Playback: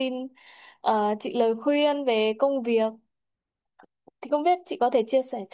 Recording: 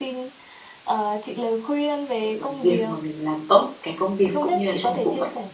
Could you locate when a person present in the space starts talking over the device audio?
2.2 s

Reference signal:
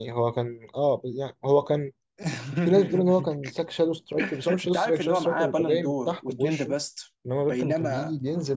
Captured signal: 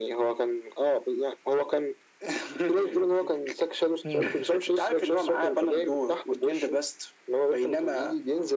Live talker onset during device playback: 4.0 s

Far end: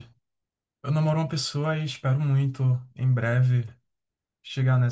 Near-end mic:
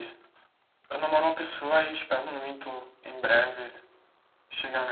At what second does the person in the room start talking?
none

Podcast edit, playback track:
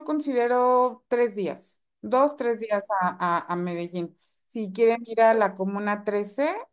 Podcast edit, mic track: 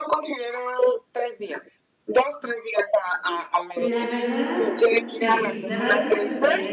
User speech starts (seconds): 3.7 s

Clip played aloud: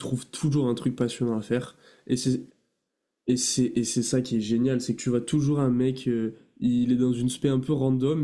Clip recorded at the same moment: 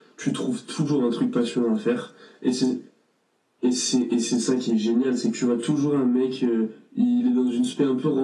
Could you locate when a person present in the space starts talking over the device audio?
none

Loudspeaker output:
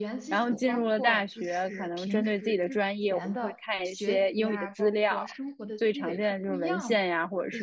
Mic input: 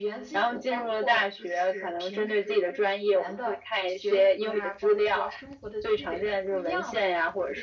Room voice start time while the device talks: none

